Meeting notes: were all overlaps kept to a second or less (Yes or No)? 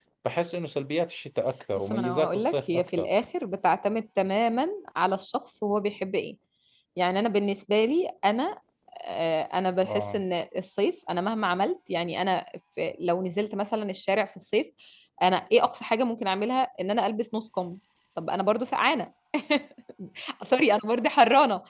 No